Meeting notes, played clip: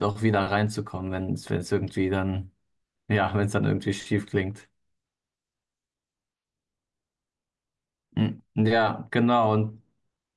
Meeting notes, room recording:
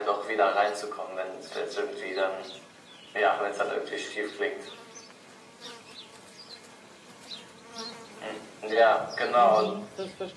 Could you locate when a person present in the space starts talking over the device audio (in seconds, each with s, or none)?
9.3 s